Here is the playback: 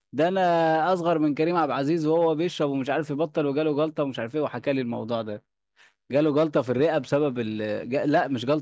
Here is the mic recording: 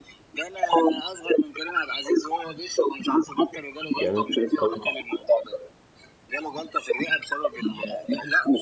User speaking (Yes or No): Yes